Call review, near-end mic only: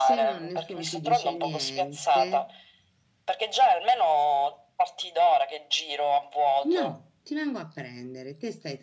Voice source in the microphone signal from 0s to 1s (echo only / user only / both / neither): both